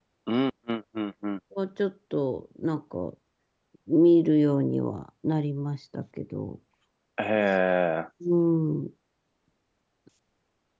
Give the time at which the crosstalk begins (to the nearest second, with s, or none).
none